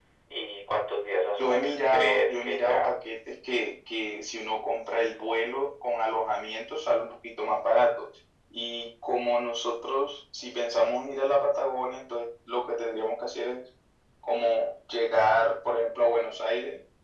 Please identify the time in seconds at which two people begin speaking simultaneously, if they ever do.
1.4 s

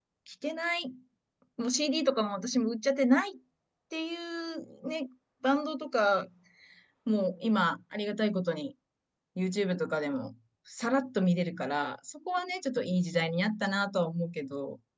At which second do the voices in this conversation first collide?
none

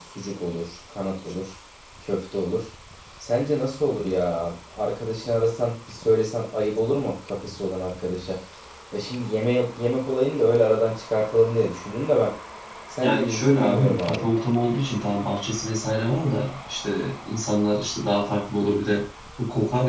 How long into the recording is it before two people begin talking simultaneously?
13.0 s

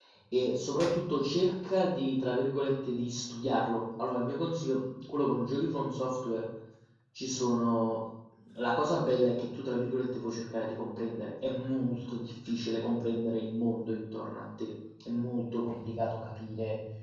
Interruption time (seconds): none

